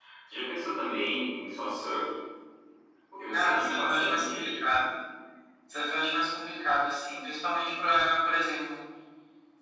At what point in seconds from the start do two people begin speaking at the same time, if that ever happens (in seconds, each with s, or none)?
3.3 s